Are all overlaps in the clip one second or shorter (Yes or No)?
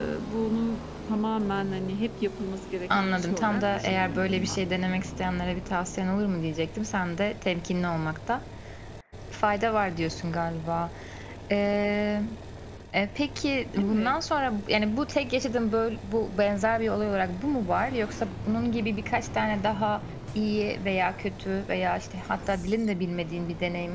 No